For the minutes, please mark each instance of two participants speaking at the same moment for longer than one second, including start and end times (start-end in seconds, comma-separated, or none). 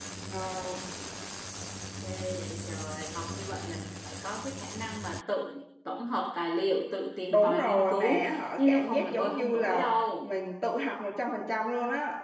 7.3-9.8